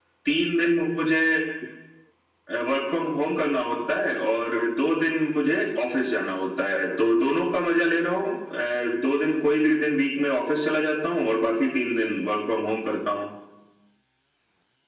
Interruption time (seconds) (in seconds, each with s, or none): none